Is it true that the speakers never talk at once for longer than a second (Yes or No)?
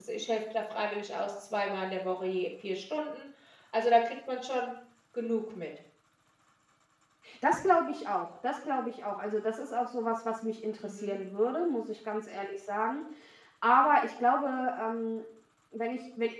Yes